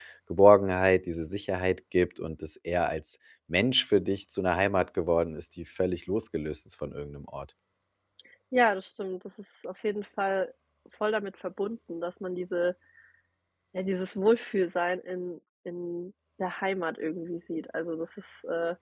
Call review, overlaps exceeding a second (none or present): none